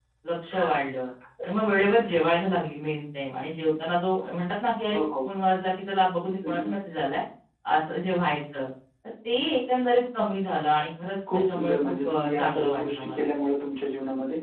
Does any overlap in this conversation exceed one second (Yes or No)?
Yes